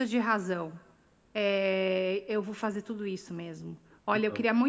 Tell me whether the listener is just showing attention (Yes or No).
Yes